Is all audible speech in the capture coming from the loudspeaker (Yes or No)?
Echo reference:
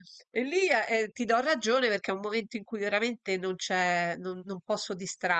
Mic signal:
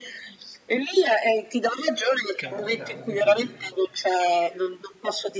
No